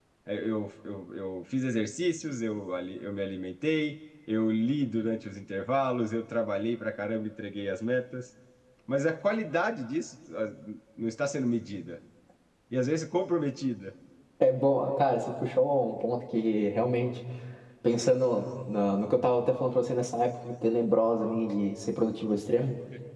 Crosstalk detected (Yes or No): No